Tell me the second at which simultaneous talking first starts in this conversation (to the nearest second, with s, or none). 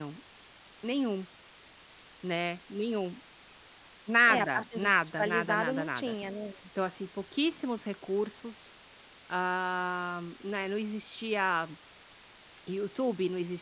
4 s